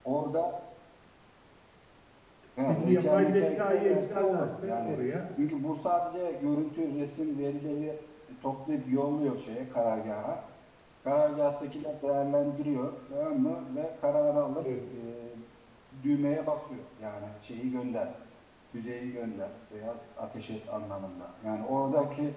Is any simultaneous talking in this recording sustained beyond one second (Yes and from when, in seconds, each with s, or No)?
Yes, from 2.7 s